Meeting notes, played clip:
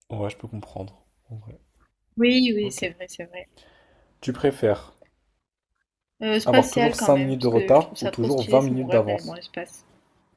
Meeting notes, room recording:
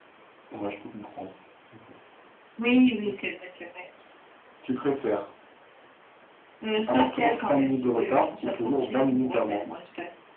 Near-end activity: none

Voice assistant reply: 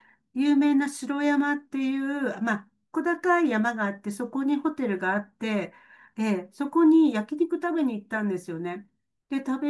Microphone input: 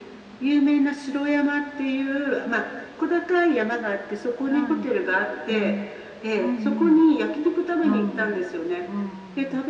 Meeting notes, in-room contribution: present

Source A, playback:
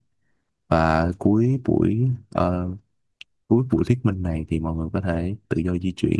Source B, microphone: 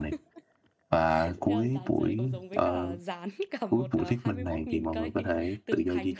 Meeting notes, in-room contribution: present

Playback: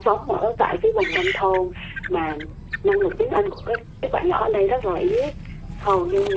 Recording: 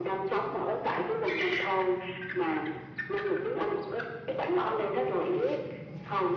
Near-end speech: none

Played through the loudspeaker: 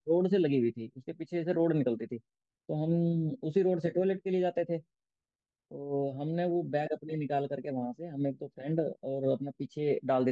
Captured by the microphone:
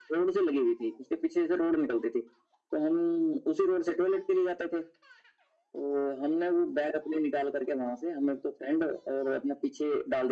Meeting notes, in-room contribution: none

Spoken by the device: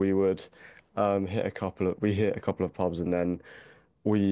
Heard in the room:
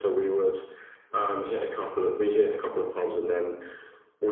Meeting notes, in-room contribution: none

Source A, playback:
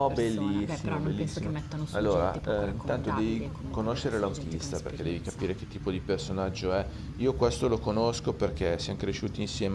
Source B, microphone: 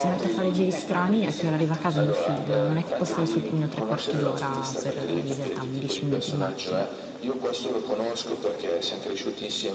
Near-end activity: present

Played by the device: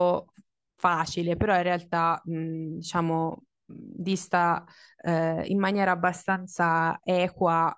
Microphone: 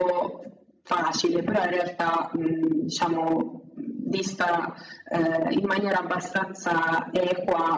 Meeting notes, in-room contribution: none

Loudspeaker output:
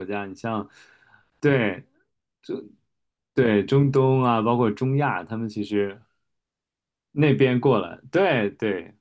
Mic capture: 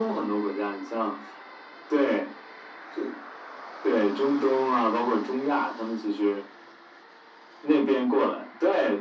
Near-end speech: none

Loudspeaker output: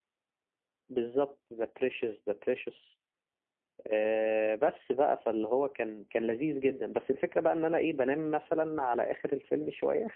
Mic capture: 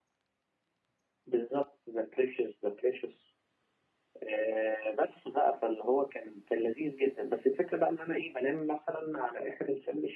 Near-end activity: none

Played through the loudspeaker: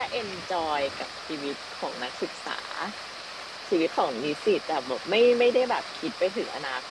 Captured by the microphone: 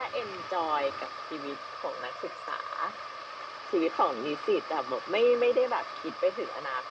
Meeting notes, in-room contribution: none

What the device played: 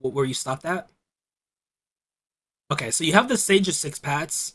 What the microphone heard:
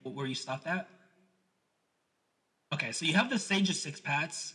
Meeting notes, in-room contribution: none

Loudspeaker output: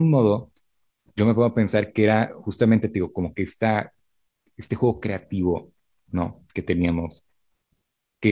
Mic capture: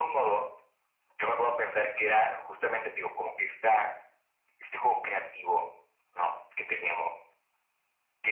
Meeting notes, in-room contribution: none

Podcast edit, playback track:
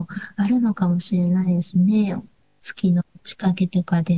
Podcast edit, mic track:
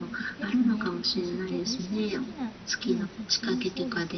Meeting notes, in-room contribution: present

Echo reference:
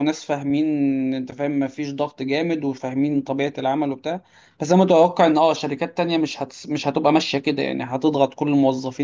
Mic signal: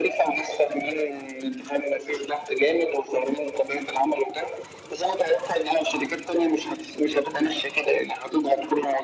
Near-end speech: none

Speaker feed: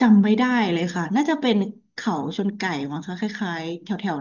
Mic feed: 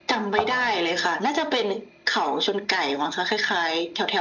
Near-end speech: present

